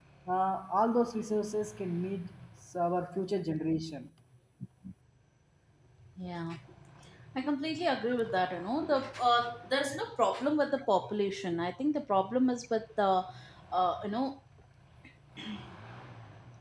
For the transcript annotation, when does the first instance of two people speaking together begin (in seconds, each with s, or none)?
none